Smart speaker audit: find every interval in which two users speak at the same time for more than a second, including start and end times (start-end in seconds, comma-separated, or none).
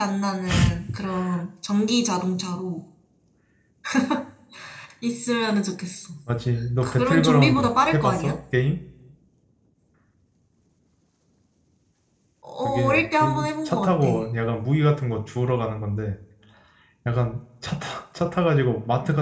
6.8-8.3, 12.6-14.1